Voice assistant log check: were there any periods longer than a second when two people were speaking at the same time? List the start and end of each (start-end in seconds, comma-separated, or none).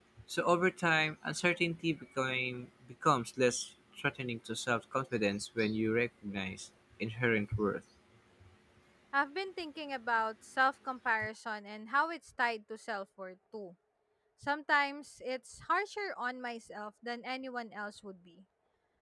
none